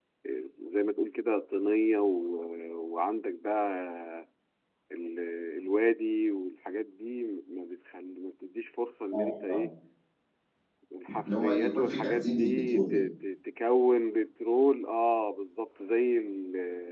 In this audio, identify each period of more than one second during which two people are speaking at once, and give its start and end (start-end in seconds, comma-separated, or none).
11.3-13.0